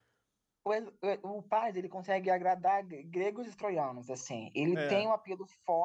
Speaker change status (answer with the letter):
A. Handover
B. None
B